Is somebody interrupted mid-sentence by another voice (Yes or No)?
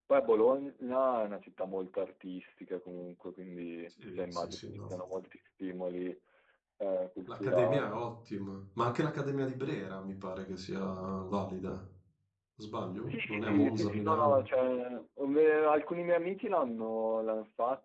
Yes